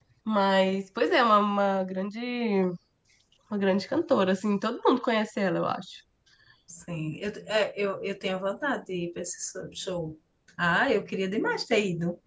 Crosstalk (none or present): none